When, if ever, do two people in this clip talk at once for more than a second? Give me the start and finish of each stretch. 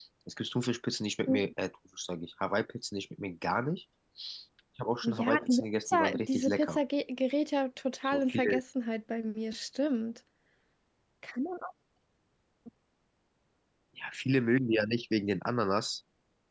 5.0-6.8

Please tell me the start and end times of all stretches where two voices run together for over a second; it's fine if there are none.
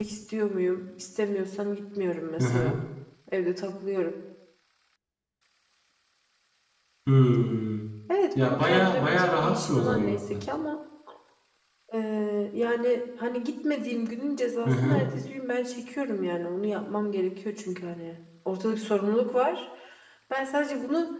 8.4-10.4

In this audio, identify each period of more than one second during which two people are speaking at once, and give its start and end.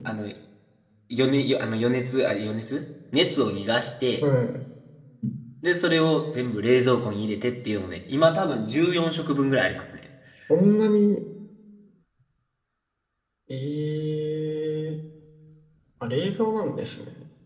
none

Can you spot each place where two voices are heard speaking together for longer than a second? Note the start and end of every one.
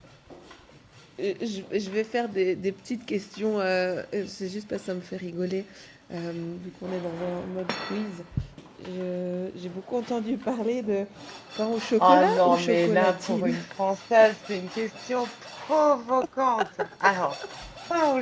12.0-13.6

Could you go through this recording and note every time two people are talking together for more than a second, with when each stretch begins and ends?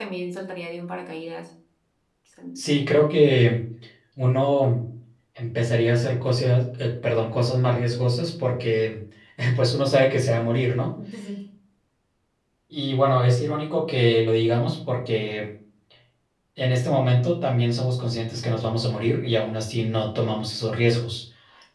none

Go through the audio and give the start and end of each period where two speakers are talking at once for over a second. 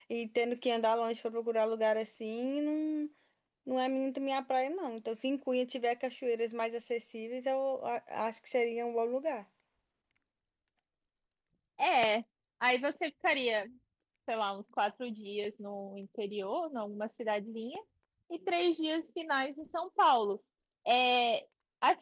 none

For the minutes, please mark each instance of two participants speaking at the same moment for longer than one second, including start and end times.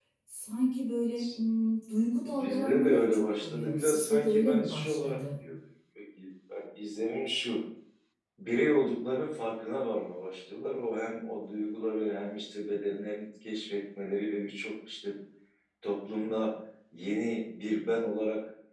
2.3-5.2

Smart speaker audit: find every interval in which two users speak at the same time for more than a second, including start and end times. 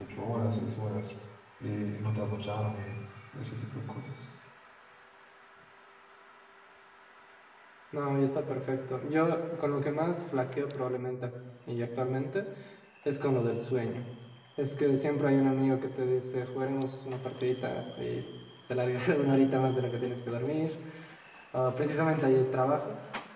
none

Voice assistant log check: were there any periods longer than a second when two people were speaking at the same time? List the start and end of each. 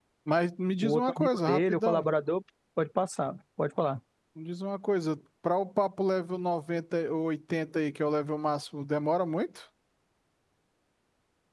0.8-2.0

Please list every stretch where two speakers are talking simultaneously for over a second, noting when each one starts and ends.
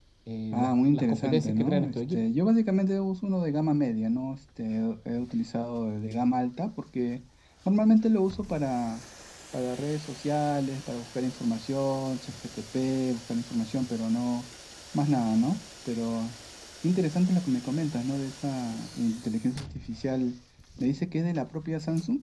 0.5-2.3

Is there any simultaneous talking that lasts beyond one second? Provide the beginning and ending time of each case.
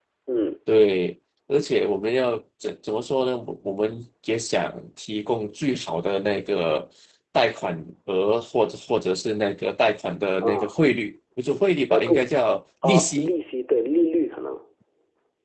none

